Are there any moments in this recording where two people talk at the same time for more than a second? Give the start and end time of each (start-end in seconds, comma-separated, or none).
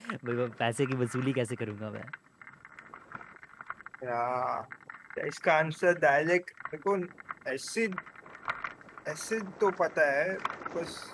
none